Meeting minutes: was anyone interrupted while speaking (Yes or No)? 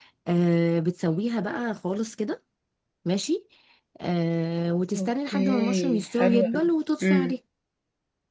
Yes